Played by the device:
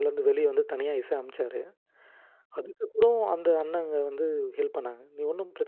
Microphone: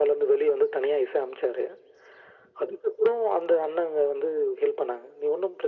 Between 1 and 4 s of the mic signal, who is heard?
echo only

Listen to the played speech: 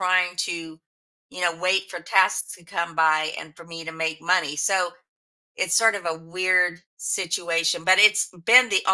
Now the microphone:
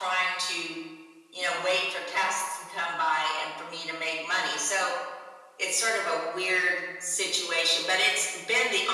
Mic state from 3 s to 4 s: echo only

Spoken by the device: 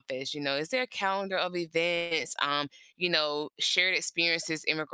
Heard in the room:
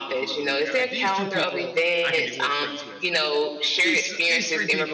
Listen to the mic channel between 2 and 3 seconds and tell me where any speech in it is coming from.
both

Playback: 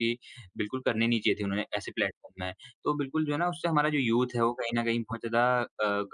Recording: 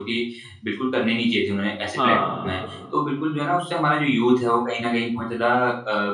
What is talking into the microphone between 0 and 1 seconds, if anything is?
echo only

